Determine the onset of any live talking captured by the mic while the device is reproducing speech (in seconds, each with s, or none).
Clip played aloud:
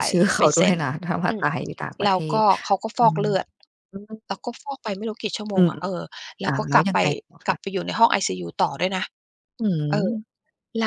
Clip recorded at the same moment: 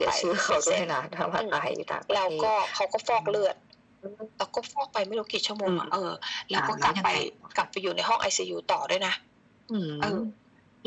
none